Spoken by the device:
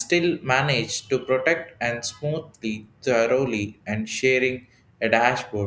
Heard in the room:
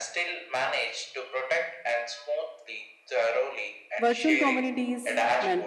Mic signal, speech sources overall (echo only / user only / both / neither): both